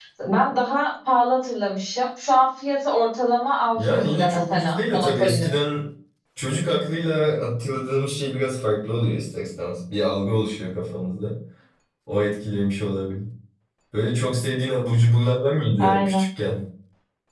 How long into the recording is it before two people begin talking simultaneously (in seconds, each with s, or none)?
3.8 s